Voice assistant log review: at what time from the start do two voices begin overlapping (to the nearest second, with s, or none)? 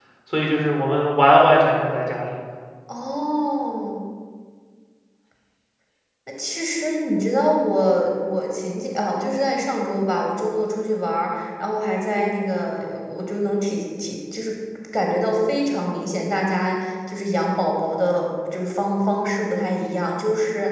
none